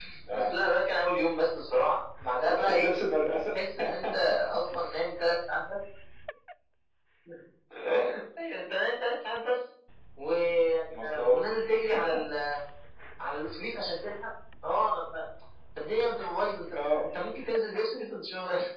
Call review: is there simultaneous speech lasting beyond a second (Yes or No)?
No